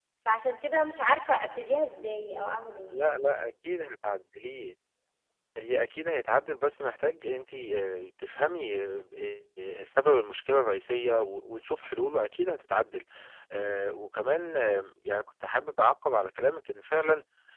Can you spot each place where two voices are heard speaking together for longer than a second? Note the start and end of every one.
none

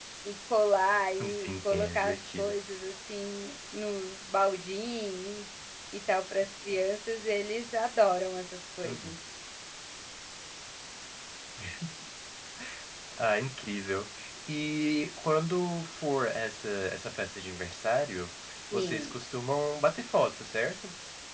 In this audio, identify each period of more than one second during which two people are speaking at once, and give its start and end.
1.2-2.5

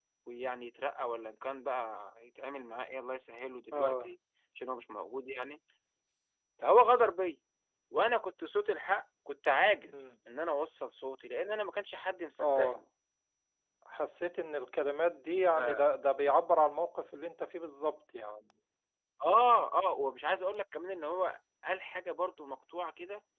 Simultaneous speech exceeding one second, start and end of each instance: none

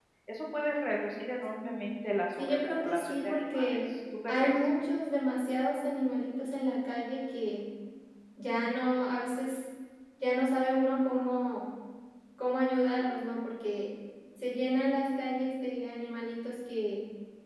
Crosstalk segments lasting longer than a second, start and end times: 2.4-3.8

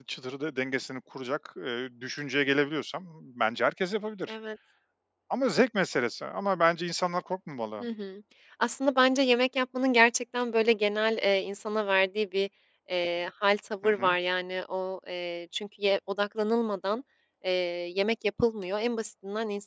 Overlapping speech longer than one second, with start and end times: none

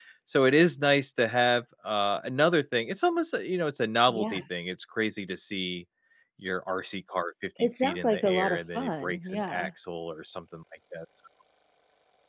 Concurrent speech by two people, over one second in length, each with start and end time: 7.6-9.7

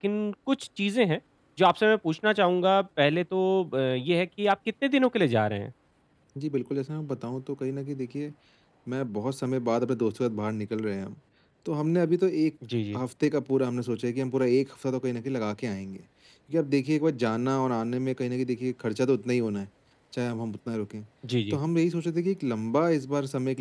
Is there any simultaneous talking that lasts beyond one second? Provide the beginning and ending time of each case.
none

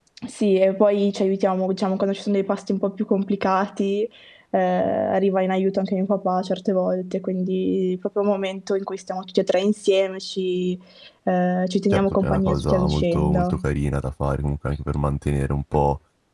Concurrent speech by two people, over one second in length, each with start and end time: 11.9-13.5

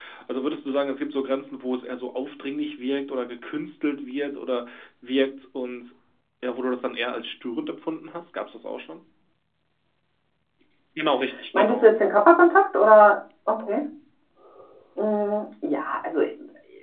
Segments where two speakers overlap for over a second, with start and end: none

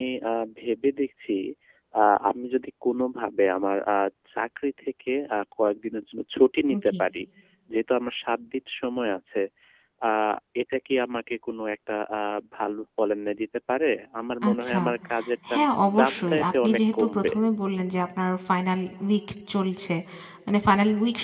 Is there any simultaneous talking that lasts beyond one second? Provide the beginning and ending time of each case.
16.0-17.3

